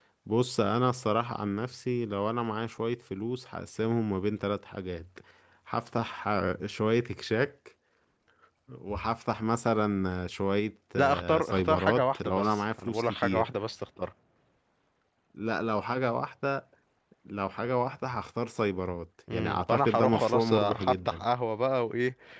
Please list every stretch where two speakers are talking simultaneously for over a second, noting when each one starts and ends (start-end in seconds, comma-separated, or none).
11.0-13.5, 19.3-21.2